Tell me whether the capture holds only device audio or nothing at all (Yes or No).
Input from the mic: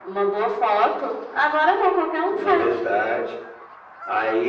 Yes